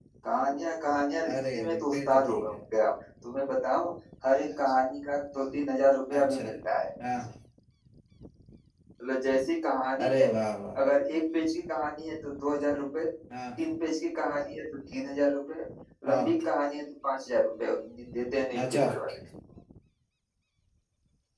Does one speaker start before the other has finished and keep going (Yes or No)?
Yes